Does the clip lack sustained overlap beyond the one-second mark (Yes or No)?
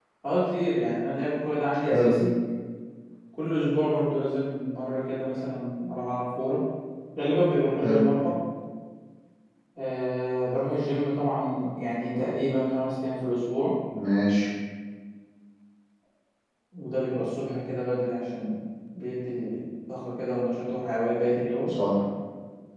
Yes